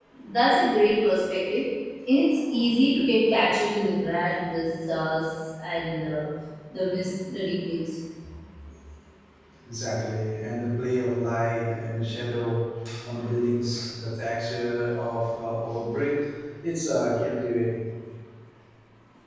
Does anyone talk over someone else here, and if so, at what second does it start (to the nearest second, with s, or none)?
none